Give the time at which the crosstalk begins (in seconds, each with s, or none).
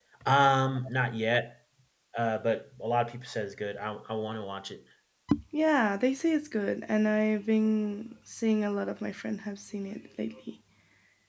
none